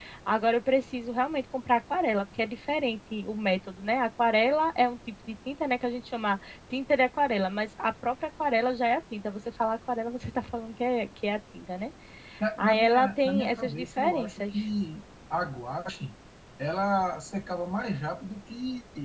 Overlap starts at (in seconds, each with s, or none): 12.6 s